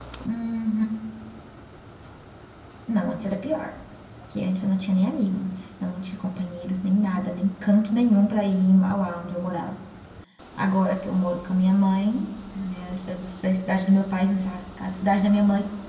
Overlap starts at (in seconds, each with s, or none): none